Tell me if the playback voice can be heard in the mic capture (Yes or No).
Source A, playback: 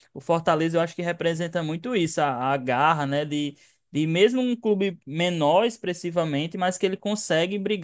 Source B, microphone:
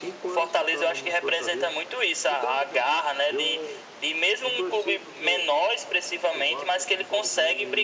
Yes